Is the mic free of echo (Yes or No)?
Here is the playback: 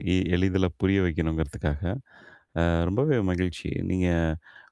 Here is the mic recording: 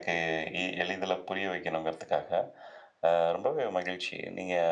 No